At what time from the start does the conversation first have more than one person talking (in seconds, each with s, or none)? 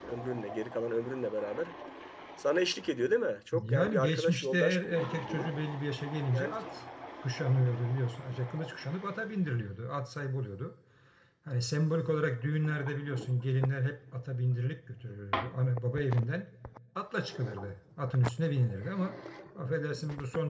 3.5 s